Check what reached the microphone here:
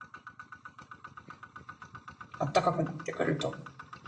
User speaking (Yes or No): Yes